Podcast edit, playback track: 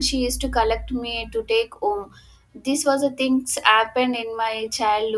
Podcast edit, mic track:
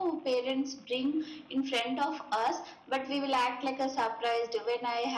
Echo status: none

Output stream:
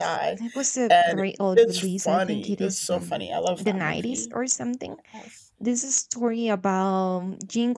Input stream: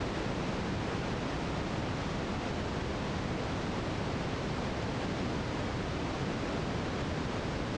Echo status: none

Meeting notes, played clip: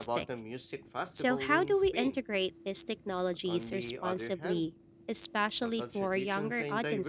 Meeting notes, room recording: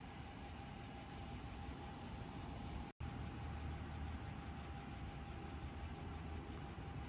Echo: none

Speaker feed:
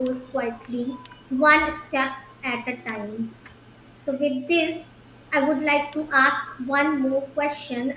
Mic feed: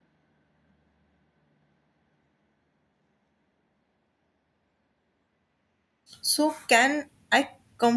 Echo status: none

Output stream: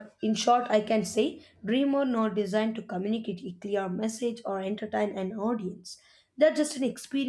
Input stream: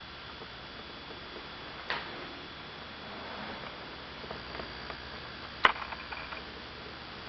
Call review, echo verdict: none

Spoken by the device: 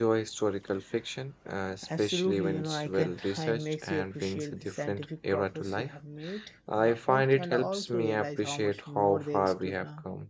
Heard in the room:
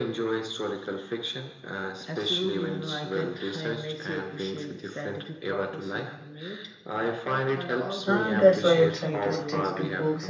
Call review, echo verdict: present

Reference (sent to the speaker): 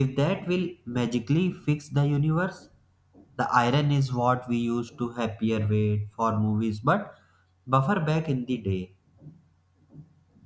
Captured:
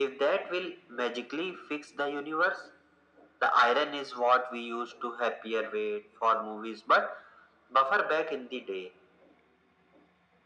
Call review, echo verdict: present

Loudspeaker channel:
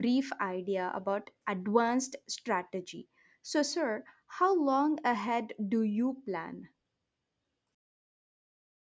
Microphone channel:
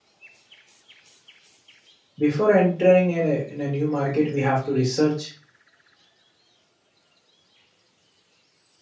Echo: none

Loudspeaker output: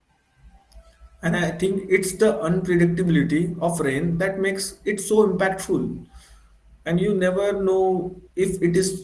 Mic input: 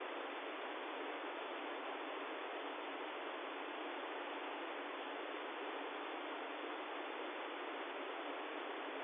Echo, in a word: none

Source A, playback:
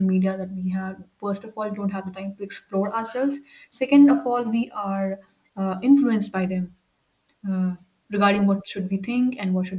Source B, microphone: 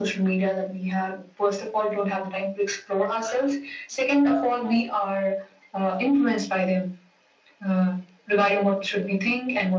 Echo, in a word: present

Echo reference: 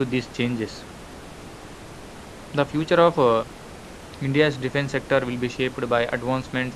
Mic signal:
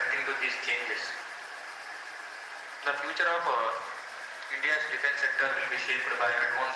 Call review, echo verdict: present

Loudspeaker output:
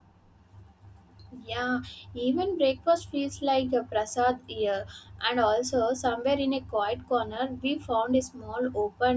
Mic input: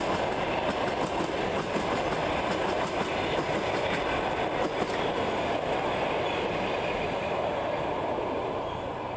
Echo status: none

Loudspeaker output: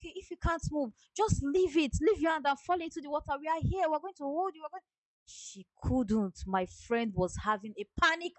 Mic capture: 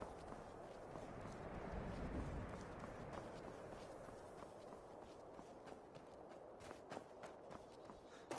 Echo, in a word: none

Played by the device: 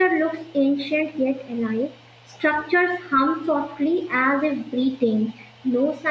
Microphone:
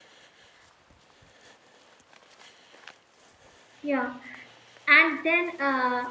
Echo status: none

